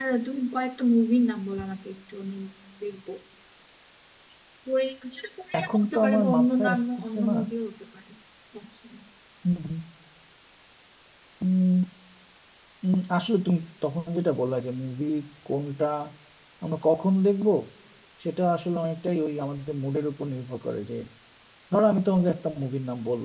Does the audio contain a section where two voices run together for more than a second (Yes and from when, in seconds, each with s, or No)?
Yes, from 5.5 s